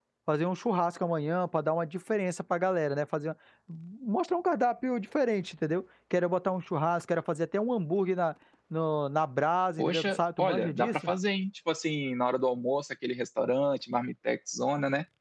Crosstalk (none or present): present